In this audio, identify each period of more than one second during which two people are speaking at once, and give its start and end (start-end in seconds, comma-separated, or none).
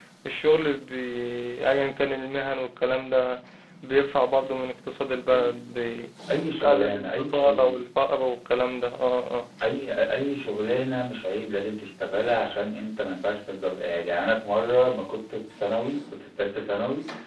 6.5-7.8